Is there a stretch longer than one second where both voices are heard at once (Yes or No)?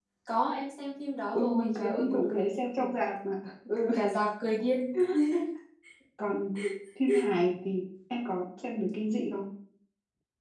Yes